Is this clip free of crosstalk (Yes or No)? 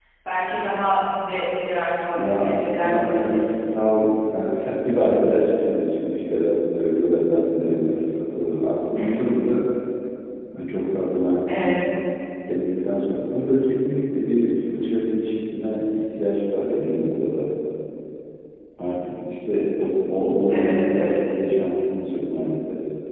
No